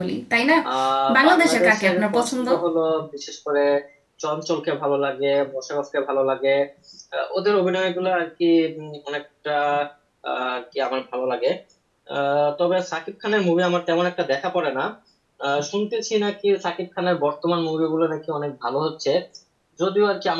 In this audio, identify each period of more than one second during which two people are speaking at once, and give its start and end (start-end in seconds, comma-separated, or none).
1.2-2.5